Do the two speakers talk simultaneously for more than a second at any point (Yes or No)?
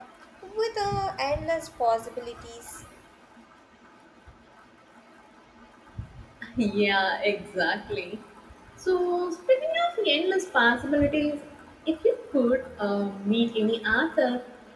No